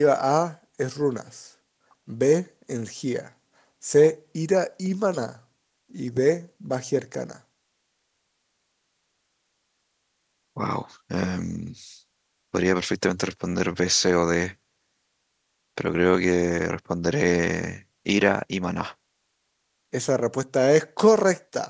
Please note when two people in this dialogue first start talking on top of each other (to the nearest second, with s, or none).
none